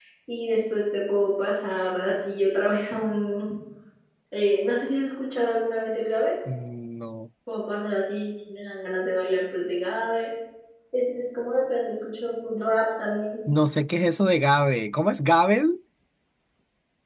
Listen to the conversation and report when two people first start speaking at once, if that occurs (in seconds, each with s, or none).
none